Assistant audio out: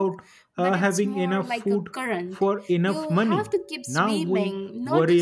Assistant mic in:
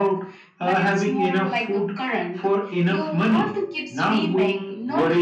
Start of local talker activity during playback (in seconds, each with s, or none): none